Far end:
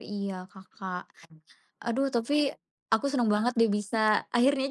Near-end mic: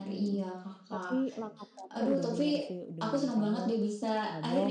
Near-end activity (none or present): present